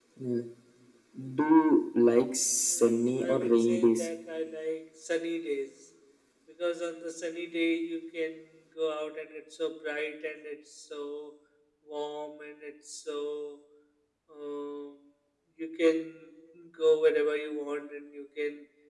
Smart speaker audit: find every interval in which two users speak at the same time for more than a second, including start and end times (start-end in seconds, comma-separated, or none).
2.7-4.1